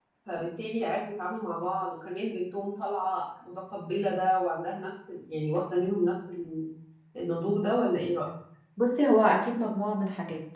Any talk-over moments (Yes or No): No